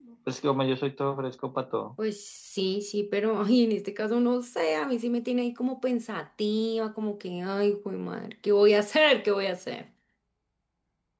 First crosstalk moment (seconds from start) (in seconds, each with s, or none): none